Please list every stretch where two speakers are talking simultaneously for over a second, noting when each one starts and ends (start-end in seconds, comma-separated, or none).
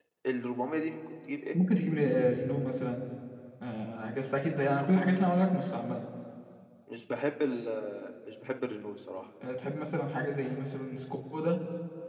none